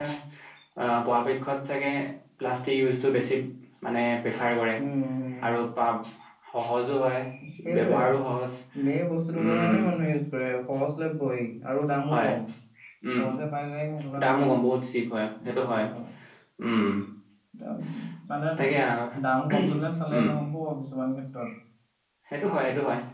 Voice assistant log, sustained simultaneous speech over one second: none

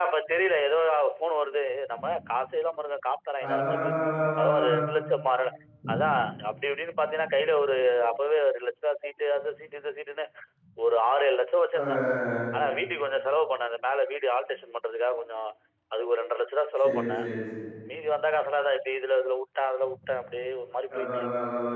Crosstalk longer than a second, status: none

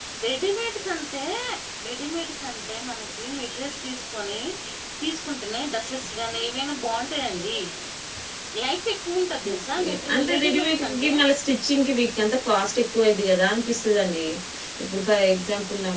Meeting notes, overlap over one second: present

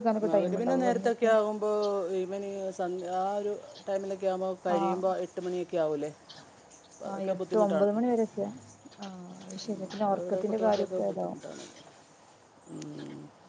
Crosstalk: present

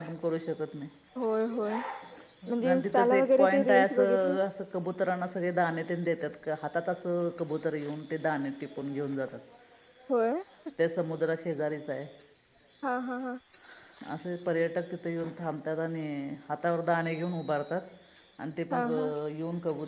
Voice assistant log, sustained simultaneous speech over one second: present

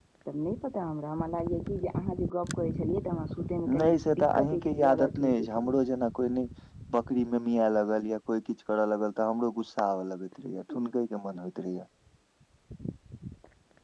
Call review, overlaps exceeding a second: present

